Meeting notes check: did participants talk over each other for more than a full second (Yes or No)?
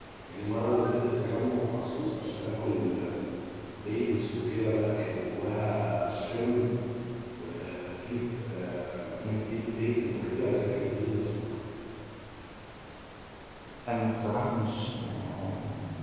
No